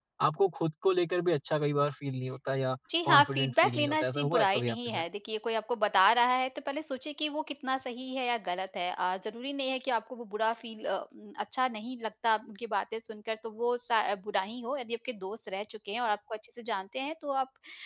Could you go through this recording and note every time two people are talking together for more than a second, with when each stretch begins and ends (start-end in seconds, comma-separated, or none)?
3.0-5.0